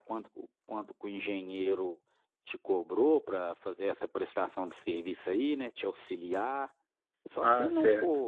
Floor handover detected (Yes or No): Yes